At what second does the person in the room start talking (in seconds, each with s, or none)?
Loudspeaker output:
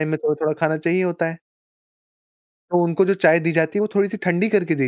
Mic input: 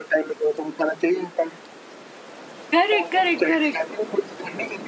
2.7 s